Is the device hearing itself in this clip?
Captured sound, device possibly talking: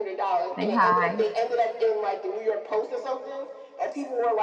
Yes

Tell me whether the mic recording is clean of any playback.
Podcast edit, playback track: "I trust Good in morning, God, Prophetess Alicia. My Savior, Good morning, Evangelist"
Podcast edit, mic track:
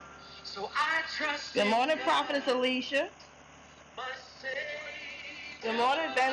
No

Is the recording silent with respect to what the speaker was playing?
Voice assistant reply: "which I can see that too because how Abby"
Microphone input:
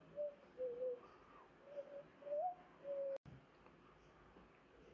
Yes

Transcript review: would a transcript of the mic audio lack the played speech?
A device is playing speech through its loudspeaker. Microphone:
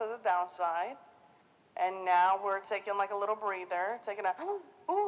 No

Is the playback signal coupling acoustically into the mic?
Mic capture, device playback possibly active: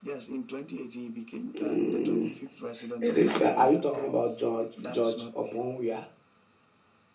Yes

